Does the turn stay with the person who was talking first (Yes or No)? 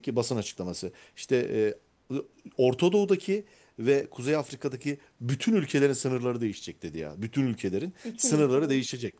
Yes